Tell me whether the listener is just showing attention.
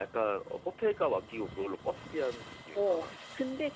No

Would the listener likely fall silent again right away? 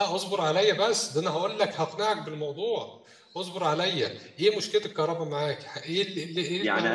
No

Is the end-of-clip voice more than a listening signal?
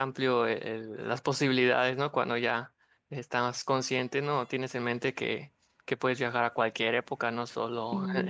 No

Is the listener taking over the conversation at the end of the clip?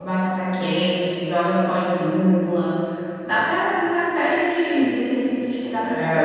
Yes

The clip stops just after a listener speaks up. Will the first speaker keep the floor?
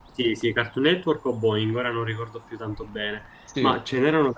Yes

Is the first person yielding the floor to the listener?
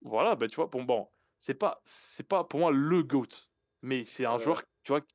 No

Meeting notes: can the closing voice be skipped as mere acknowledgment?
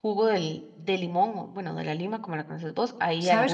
No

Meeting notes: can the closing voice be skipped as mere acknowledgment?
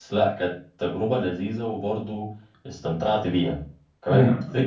Yes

